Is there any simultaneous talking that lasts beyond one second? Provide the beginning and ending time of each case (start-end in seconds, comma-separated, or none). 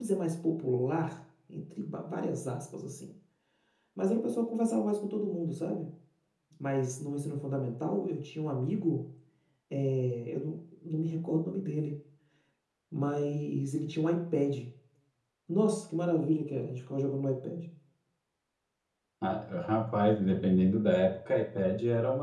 none